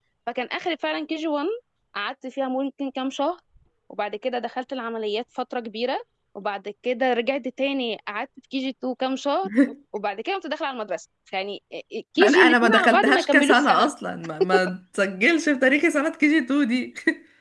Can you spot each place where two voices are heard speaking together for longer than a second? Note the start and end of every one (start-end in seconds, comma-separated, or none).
12.2-13.9